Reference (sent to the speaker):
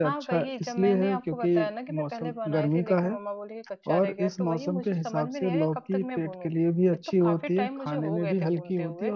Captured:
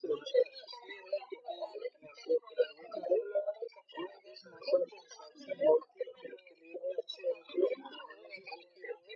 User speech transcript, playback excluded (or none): none